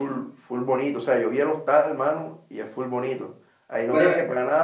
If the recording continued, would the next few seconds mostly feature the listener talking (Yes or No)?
No